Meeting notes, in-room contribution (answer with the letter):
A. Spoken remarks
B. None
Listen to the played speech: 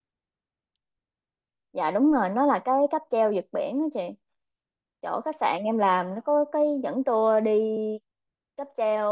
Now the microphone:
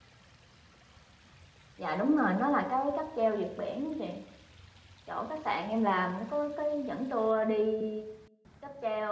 B